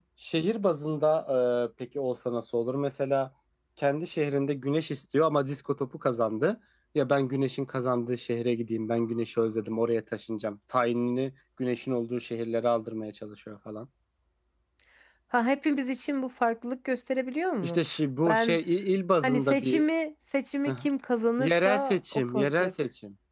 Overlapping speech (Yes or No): Yes